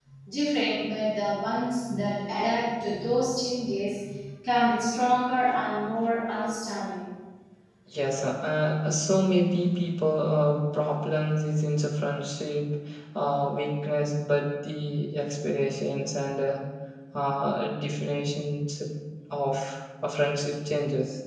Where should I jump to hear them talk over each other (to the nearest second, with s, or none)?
none